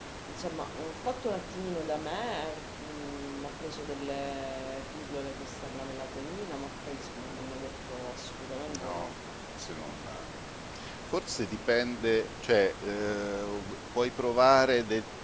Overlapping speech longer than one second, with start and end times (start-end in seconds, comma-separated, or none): none